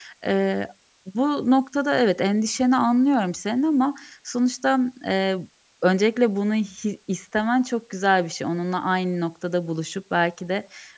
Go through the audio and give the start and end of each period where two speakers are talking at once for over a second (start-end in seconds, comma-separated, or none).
none